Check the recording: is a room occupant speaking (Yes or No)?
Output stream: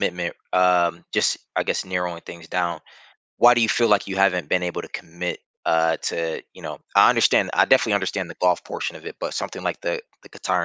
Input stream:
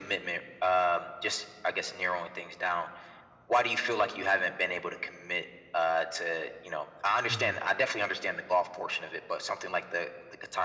Yes